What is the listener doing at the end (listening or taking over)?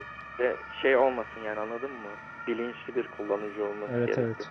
taking over